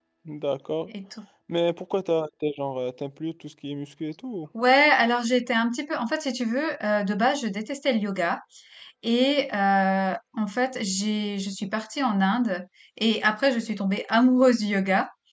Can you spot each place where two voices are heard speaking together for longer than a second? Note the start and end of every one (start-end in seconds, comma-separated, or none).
none